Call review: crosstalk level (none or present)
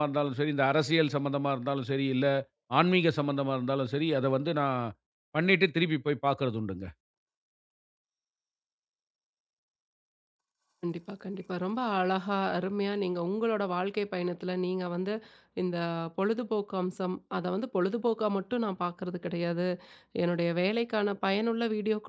none